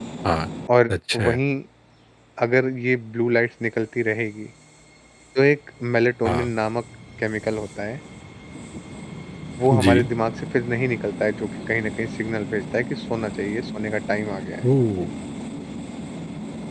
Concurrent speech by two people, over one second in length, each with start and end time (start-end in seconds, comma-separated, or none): none